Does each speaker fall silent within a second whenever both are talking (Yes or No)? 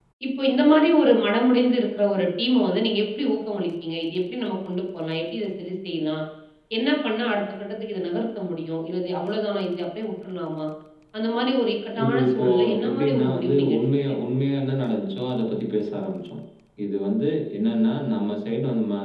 No